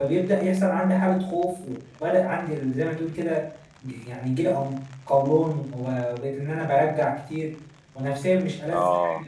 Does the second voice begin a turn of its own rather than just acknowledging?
No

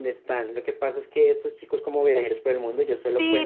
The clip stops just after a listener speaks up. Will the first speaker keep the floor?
No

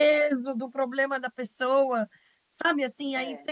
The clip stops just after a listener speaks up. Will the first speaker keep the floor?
Yes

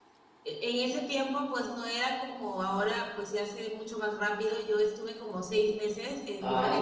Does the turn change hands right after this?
No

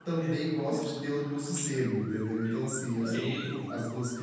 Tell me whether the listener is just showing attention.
Yes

